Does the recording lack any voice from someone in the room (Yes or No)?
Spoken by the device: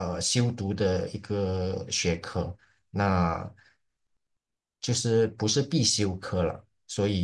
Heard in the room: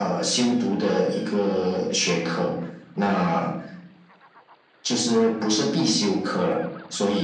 Yes